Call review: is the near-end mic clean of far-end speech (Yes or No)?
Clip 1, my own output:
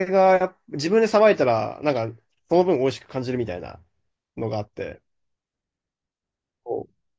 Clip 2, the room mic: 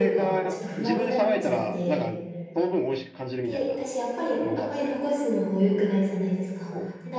No